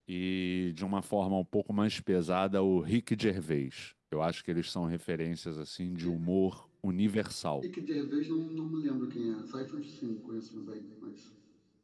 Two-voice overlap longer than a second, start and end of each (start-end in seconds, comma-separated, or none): none